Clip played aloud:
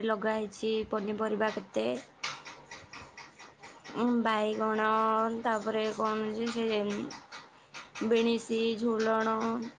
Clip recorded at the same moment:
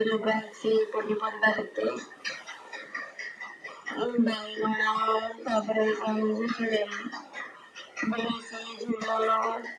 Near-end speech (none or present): none